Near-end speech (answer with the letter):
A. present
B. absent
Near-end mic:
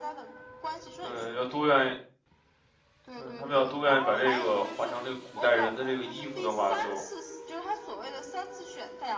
A